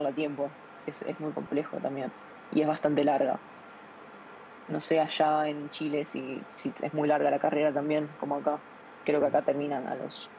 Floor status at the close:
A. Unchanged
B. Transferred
A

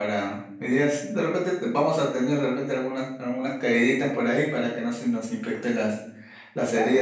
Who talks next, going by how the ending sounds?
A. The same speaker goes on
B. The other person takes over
B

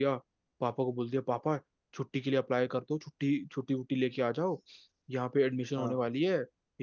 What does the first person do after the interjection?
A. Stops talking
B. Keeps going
B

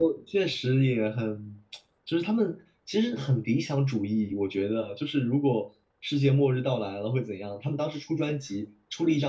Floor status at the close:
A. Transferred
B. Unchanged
B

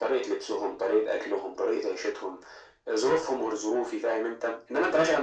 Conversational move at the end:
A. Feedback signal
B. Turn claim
A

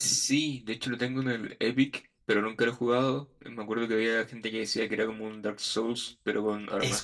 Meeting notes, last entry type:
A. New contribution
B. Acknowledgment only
A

